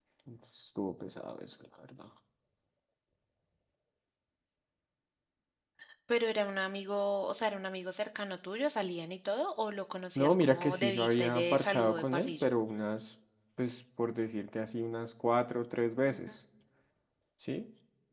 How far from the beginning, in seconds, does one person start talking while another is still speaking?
10.2 s

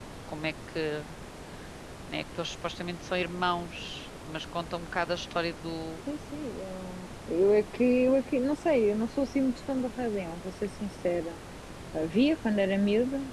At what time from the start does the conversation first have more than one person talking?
none

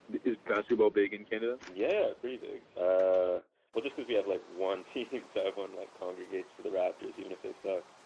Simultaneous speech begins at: none

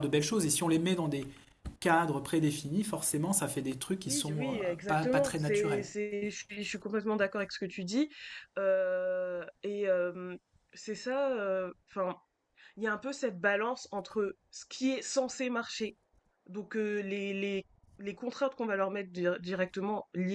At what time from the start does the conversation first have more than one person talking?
4.0 s

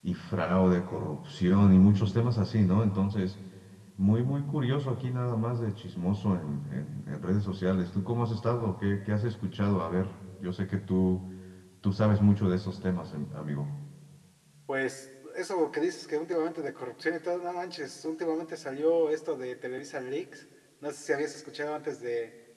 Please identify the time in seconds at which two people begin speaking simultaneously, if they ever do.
none

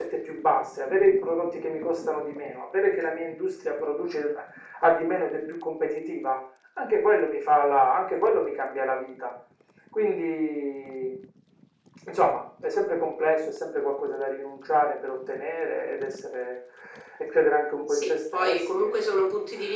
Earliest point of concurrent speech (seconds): 17.9 s

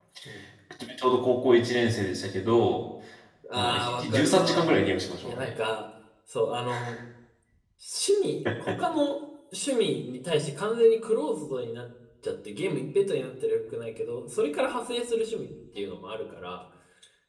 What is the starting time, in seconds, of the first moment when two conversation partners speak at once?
3.6 s

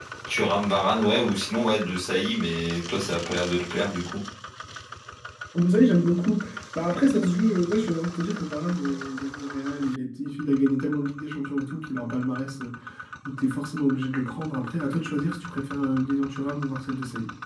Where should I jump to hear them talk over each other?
none

